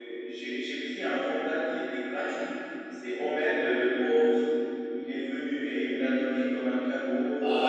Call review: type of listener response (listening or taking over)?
taking over